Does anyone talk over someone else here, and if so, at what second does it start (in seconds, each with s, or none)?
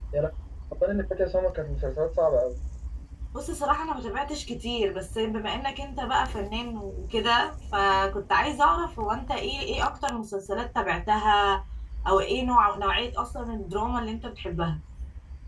none